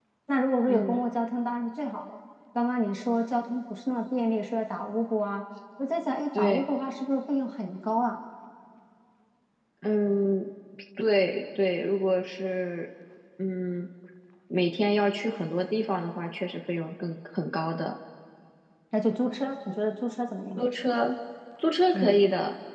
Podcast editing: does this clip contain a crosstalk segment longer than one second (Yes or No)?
No